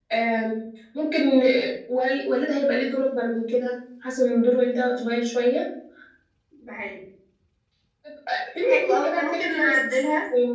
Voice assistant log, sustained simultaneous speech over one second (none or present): present